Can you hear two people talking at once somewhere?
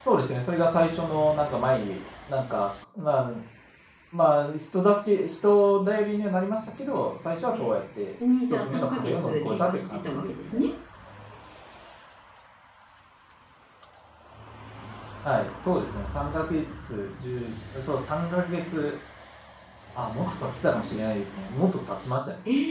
Yes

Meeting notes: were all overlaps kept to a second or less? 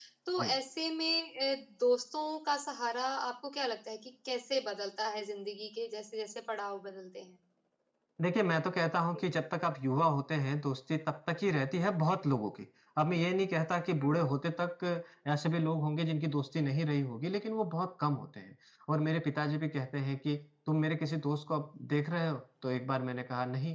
Yes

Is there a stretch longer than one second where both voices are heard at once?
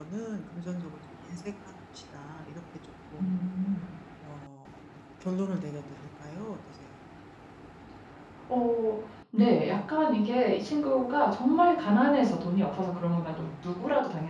No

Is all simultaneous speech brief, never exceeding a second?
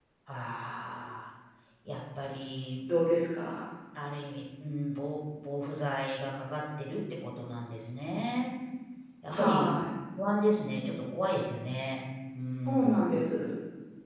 Yes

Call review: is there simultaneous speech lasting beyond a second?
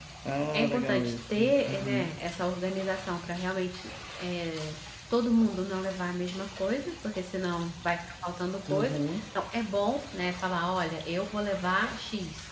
Yes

